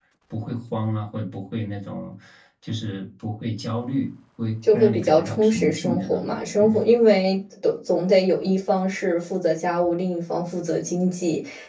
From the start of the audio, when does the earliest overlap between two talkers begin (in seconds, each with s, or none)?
4.6 s